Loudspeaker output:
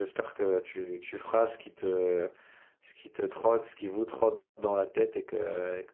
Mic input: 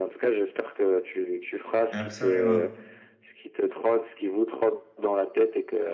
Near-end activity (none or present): present